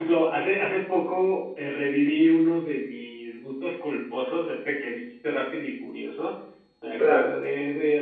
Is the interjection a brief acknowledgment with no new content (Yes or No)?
Yes